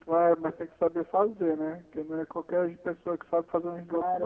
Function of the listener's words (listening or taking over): taking over